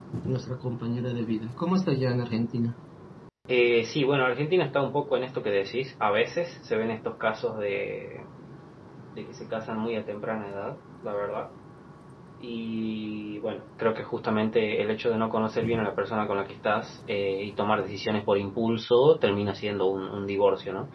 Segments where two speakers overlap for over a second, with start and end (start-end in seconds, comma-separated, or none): none